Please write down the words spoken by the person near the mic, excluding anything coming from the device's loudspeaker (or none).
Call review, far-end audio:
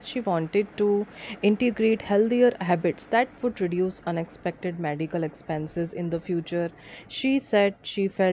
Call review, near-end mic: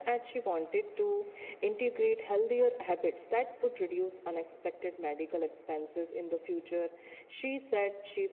none